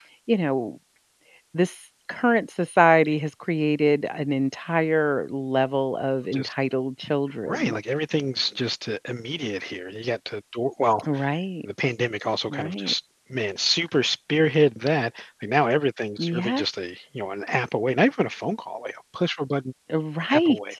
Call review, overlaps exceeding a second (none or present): none